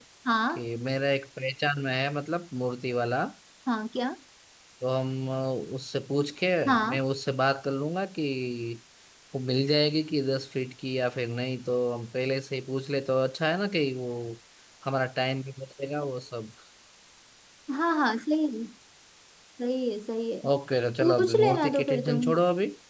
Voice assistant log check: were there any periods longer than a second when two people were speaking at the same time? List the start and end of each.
21.0-22.2

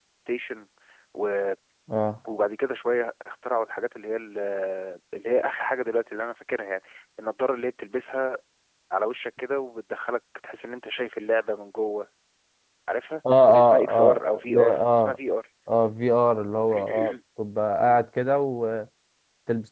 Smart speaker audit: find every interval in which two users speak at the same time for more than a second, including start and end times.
13.5-15.2

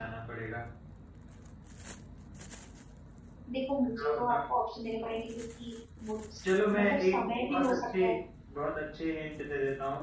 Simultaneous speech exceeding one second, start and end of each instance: 6.7-8.0

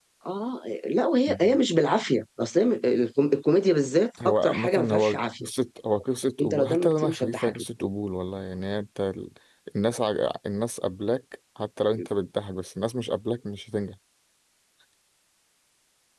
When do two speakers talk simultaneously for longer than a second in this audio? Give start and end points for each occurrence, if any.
4.2-5.5, 6.4-7.6

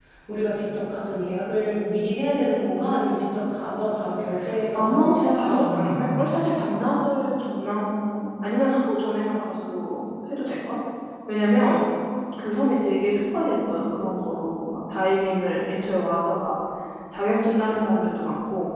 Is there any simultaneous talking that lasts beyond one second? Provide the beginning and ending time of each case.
4.7-6.1

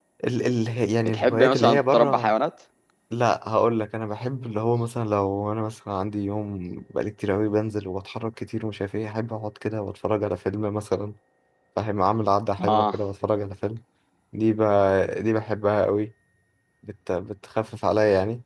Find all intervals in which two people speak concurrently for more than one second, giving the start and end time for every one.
1.0-2.3

